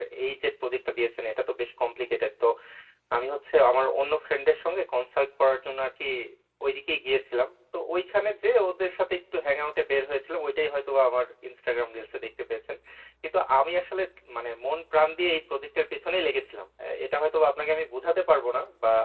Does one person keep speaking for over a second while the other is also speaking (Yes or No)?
No